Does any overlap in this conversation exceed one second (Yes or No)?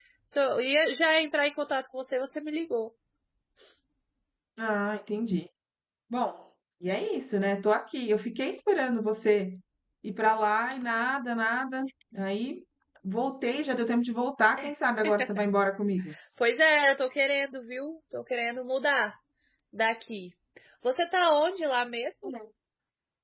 No